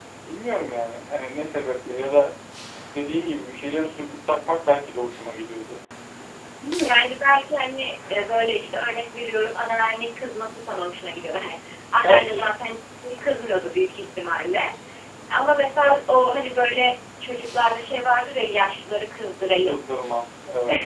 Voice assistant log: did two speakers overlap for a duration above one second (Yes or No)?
No